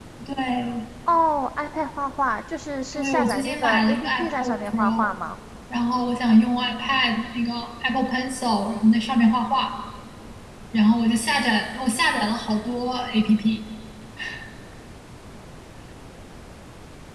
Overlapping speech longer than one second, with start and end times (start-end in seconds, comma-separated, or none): 2.9-5.1